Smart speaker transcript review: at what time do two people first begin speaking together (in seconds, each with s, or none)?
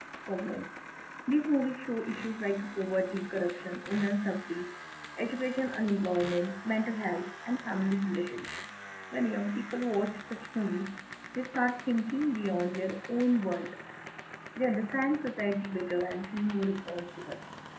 none